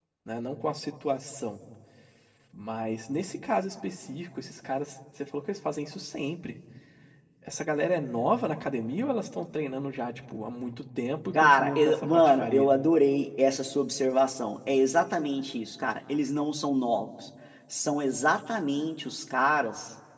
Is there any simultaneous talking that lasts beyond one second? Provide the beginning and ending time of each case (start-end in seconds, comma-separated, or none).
11.3-12.7